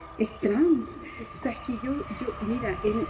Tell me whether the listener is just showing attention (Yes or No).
Yes